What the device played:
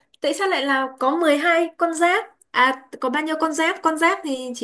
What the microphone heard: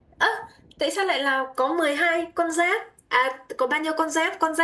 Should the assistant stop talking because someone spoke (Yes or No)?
No